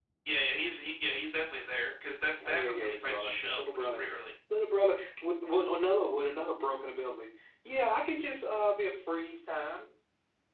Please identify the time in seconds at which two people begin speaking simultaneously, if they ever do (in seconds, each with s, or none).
2.4 s